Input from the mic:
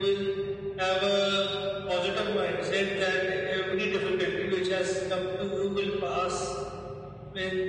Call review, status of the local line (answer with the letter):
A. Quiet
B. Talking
A